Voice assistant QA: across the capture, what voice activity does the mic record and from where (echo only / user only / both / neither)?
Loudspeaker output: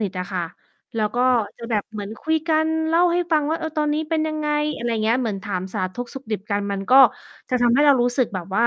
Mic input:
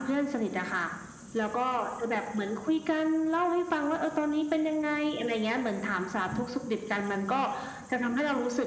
echo only